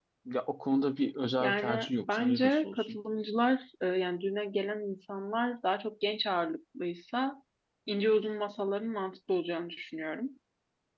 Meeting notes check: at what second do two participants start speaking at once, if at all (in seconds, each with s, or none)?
1.4 s